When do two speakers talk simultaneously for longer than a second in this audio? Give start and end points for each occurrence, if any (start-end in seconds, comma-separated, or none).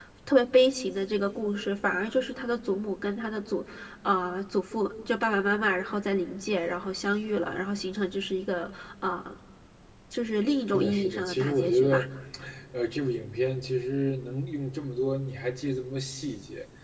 10.7-12.1